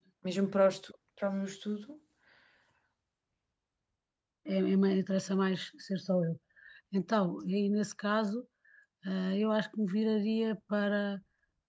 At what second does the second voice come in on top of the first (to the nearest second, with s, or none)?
none